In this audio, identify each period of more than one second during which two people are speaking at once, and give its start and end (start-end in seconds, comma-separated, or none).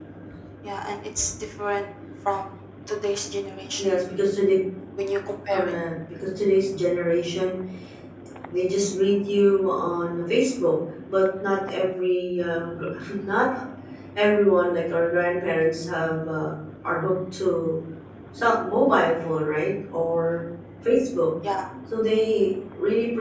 none